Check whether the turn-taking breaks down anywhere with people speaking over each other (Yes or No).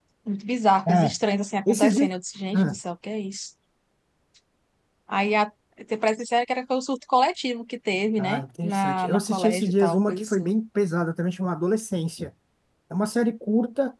Yes